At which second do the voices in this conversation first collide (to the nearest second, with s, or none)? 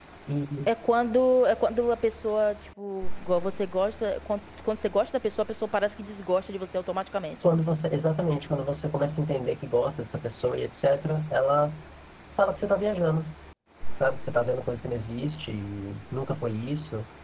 none